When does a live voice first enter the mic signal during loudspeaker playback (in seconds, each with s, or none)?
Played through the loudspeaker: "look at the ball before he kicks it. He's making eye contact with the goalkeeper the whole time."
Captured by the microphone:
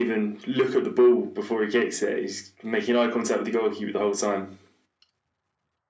none